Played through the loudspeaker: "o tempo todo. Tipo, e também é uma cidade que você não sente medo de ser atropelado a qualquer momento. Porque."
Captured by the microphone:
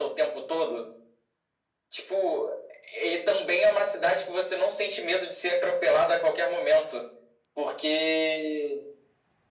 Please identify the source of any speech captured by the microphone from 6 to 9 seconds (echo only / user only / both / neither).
echo only